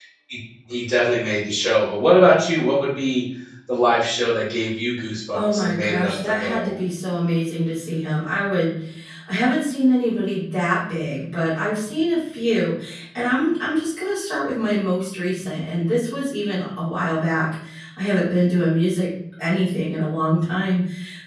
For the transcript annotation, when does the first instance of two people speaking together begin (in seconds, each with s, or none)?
5.3 s